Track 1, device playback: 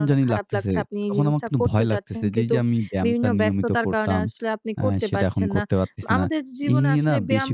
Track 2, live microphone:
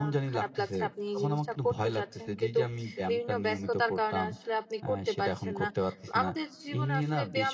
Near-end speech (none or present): none